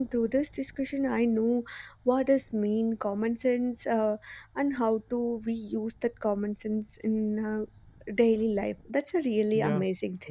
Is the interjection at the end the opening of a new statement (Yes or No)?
Yes